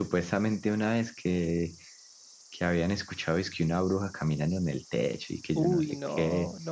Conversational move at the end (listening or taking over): taking over